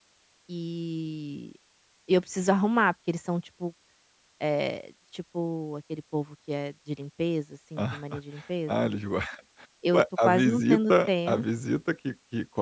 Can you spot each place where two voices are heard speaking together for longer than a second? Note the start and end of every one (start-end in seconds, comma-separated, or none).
9.9-11.4